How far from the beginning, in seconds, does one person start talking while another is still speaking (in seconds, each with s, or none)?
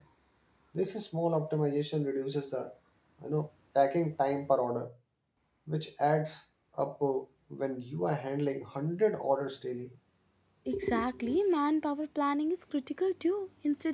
none